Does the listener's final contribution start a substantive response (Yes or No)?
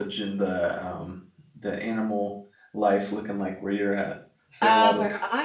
Yes